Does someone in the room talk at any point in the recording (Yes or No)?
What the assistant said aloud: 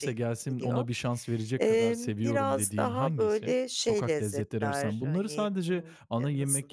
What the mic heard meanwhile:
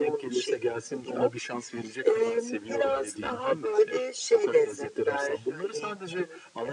No